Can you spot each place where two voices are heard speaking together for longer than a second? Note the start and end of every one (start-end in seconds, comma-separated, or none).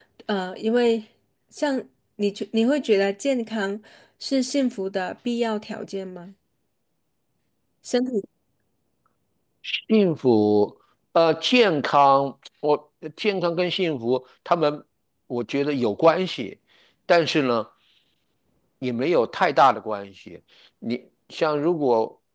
none